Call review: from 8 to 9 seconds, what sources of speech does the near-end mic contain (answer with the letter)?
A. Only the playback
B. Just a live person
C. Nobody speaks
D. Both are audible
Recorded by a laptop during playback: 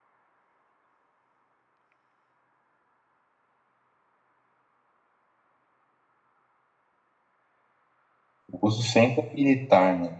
B